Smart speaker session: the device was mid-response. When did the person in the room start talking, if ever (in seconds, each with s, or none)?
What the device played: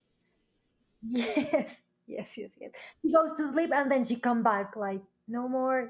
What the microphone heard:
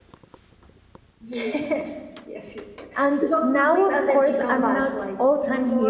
3.0 s